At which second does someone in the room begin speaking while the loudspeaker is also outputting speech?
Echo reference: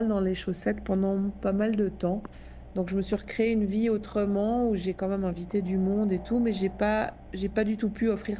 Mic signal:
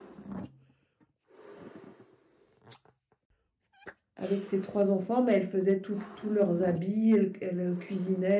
4.1 s

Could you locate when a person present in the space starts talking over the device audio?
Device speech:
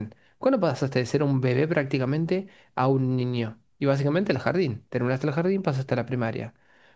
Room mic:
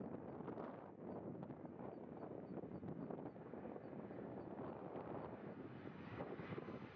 none

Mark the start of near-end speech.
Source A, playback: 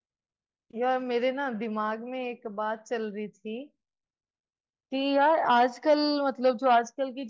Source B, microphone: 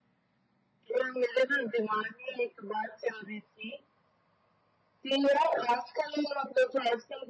none

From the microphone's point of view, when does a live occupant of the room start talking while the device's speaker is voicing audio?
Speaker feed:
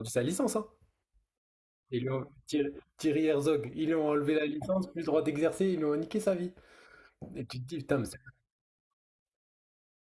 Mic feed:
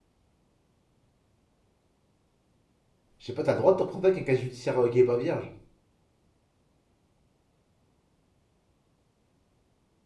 3.2 s

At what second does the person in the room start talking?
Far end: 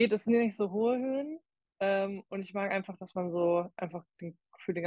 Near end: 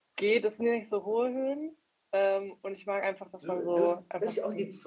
3.4 s

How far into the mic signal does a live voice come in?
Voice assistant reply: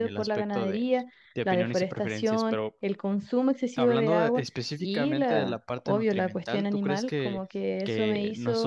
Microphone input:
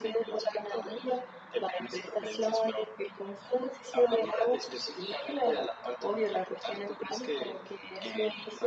none

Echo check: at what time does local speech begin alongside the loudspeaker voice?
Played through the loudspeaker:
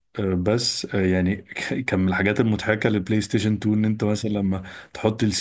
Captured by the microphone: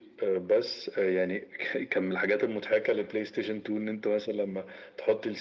none

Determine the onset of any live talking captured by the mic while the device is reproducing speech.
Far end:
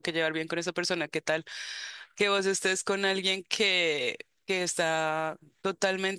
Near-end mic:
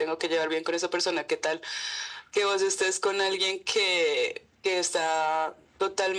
none

